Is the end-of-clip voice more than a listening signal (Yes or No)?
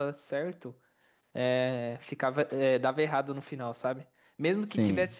No